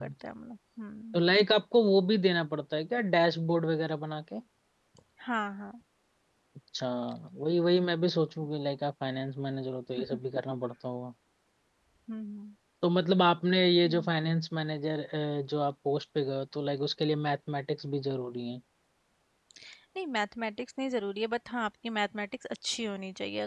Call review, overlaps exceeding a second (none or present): none